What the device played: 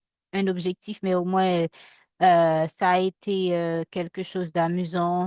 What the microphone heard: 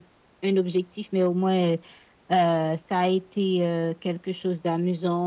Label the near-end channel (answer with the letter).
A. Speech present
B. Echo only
B